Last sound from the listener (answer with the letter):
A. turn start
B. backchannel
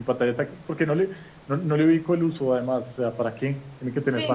A